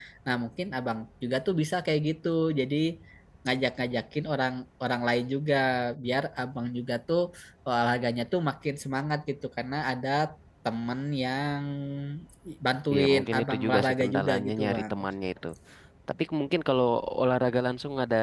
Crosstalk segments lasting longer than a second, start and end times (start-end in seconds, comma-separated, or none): 12.9-14.9